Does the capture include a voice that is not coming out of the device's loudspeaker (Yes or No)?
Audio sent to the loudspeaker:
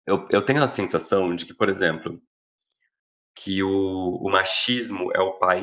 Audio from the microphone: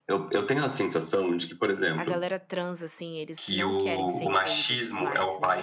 Yes